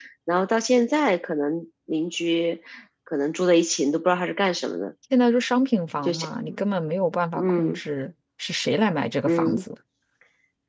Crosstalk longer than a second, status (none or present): none